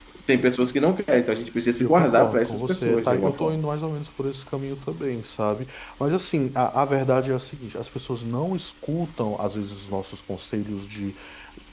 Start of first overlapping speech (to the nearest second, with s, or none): 2 s